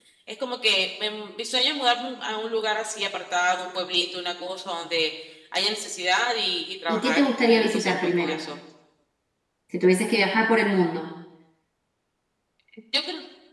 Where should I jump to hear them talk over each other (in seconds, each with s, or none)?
6.9 s